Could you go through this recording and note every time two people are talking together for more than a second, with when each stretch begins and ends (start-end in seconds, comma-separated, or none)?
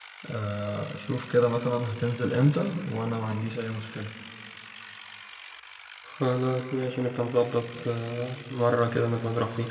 none